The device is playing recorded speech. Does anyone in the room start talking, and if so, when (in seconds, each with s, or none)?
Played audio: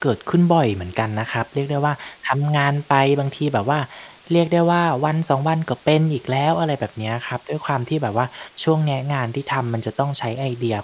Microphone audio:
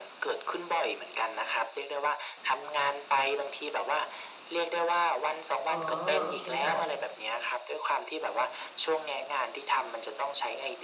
5.7 s